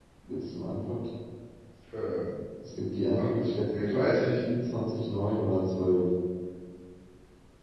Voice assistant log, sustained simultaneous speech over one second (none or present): present